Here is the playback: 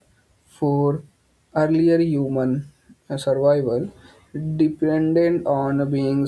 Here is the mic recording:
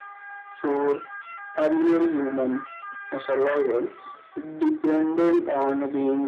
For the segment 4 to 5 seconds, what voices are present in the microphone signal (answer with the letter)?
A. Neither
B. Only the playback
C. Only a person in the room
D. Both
B